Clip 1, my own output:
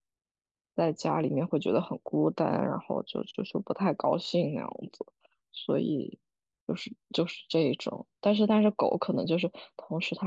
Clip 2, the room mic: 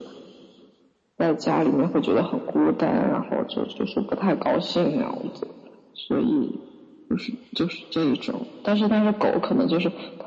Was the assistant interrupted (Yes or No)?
No